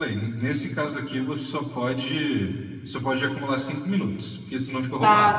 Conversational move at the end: taking over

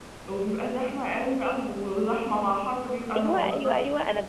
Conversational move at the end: taking over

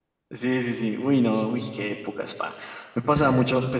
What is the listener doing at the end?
listening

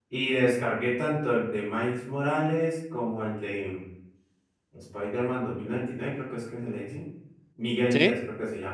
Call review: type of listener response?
listening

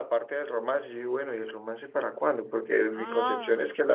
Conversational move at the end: listening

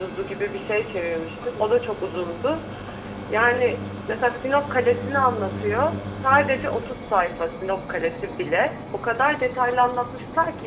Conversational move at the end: listening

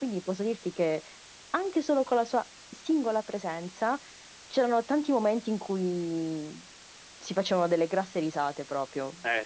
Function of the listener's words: taking over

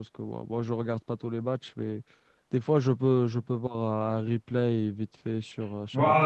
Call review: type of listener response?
taking over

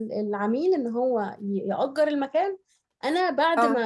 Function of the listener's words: listening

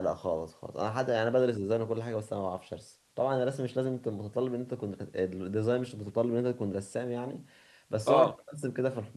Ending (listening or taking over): listening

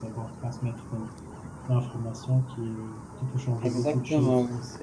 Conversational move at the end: taking over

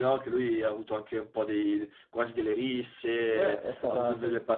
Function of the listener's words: taking over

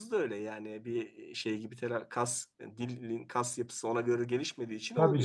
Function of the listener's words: taking over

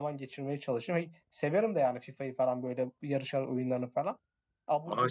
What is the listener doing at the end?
taking over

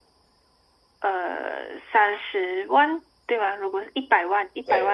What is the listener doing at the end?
listening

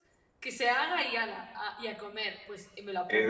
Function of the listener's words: taking over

